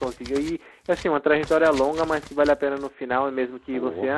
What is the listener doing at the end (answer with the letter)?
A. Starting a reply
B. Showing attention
B